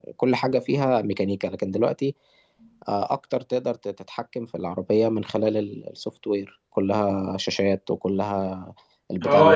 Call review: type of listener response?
listening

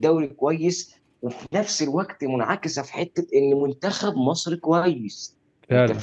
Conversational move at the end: listening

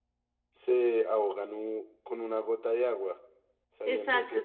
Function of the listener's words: taking over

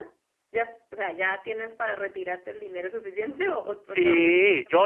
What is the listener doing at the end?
taking over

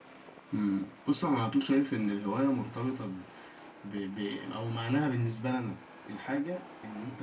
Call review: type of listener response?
listening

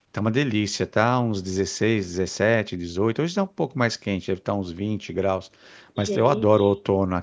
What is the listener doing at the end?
listening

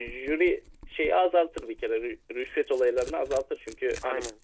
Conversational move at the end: listening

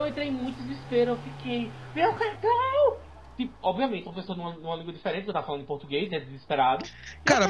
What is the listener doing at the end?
taking over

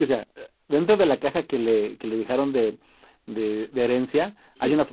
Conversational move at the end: listening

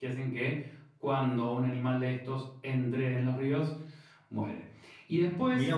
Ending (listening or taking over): listening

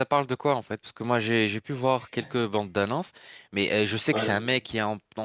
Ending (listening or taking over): listening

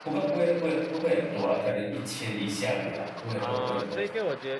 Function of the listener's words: taking over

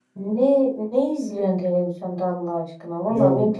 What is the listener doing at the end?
listening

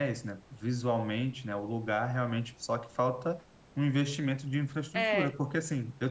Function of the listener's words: listening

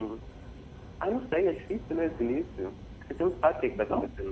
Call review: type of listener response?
listening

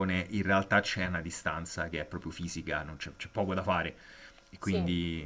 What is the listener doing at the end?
listening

